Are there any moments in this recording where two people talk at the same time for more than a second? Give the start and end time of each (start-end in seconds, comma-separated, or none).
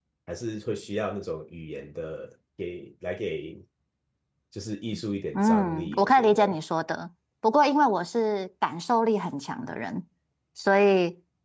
5.3-6.6